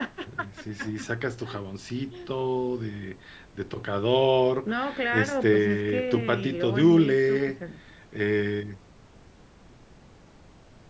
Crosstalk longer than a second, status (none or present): present